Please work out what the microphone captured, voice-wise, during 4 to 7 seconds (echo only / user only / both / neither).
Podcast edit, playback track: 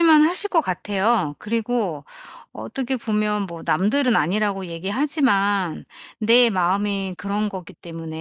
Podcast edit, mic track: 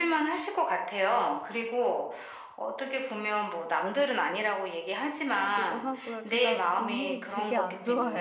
both